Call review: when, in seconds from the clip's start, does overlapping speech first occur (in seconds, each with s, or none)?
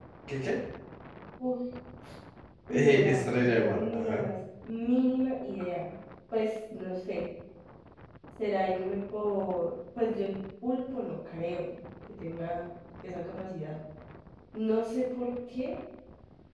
2.7 s